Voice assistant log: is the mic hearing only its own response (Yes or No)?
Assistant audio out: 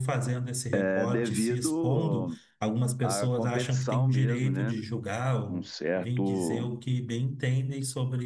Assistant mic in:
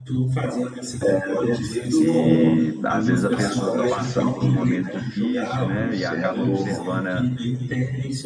No